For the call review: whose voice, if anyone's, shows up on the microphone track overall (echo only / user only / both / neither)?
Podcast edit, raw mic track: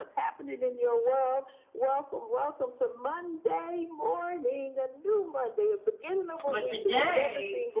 both